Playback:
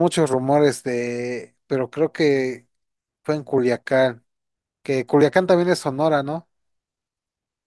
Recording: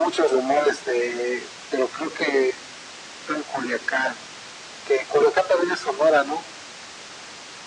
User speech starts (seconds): none

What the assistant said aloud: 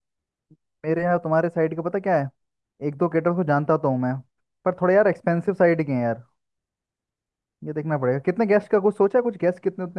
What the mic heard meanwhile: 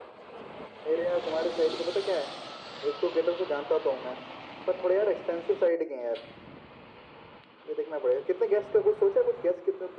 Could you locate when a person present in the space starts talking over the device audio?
none

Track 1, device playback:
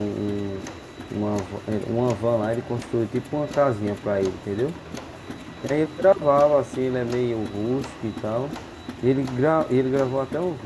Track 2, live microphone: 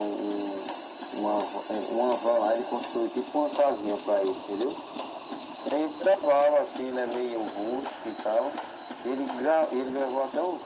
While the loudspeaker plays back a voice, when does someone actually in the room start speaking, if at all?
none

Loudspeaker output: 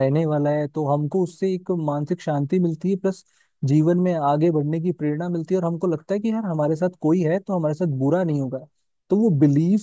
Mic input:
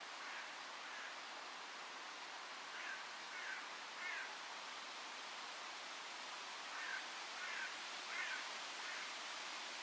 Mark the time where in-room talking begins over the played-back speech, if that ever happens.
none

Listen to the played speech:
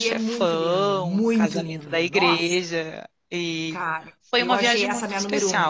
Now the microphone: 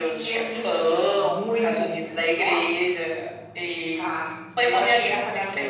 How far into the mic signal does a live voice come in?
none

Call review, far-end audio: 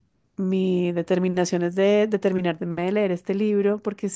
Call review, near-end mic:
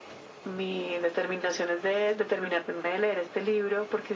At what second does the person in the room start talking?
none

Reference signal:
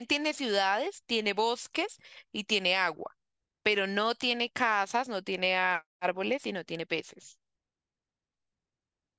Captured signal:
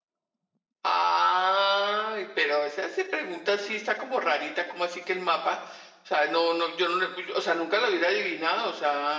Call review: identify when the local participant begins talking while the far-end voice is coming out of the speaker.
0.8 s

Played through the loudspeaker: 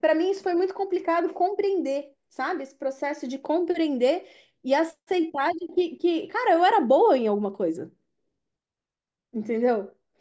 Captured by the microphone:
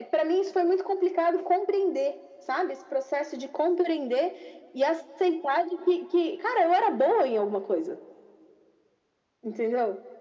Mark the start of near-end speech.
none

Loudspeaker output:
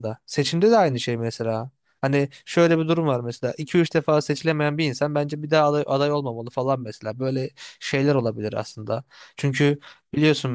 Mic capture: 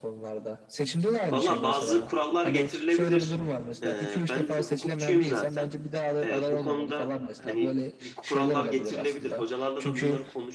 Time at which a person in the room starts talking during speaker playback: 1.3 s

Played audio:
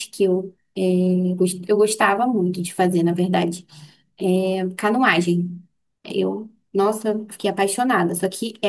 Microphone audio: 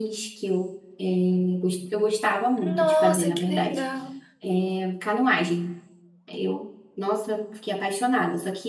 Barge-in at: 2.6 s

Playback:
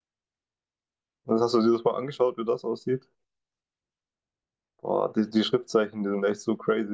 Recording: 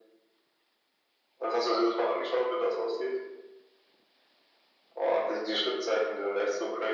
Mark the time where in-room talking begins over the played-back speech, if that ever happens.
none

